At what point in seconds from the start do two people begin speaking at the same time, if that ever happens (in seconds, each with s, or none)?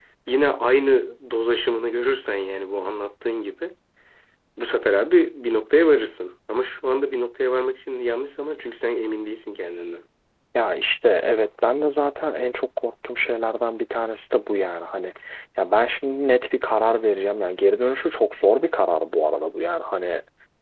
none